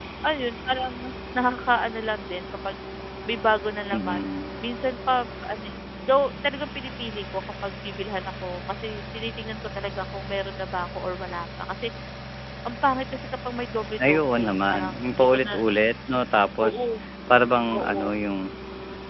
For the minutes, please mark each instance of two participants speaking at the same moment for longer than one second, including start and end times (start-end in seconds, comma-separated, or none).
14.1-15.6